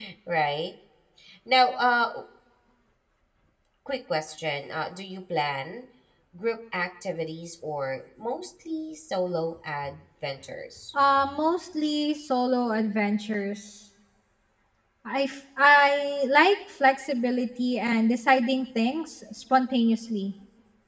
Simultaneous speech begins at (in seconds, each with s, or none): none